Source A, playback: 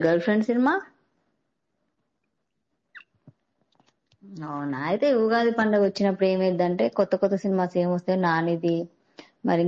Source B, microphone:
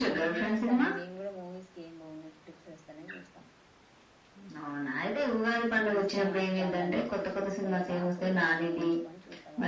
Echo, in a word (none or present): present